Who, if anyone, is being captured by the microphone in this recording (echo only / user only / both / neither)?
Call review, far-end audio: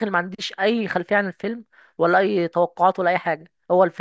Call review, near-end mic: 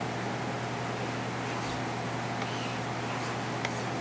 neither